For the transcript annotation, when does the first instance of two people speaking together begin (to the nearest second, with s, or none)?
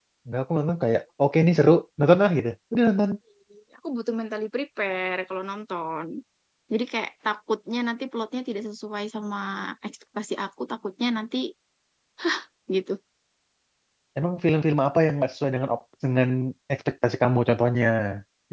none